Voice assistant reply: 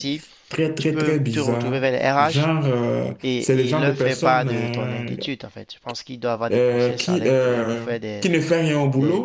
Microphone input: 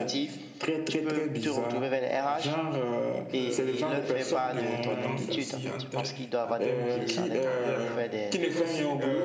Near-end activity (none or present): present